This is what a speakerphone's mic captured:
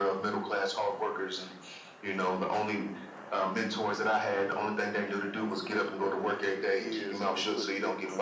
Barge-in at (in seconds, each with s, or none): 5.8 s